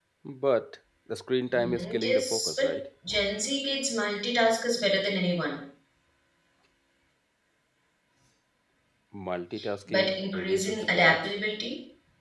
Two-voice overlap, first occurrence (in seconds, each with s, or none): 1.5 s